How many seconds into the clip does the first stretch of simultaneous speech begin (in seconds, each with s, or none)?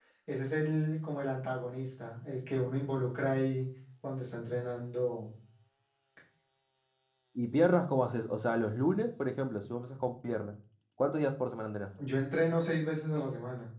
none